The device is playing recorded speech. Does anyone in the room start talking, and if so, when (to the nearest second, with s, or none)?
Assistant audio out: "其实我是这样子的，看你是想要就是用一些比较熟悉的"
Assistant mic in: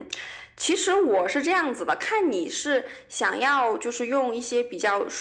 none